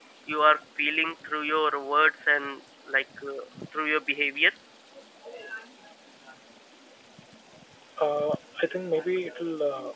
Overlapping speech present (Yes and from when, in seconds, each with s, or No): No